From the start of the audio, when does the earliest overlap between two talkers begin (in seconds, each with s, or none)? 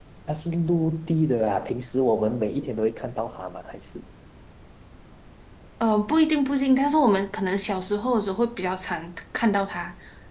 none